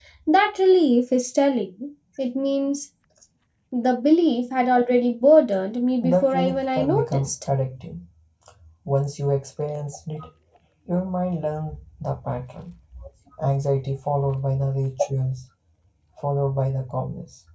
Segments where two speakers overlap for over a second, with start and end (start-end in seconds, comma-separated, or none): 6.0-7.3